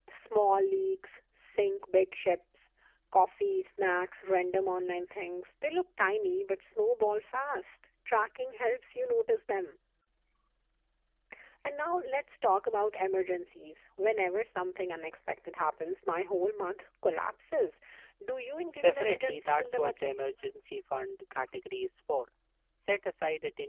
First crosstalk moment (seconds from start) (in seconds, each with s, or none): 18.8 s